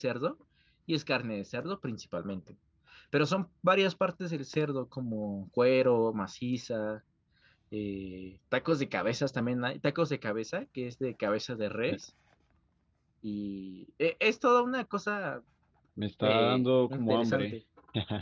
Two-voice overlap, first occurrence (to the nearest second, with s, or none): 16 s